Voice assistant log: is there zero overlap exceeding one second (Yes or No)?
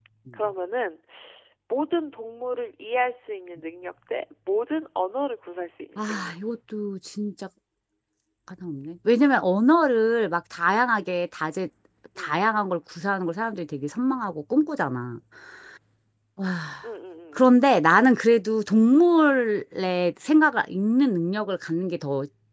Yes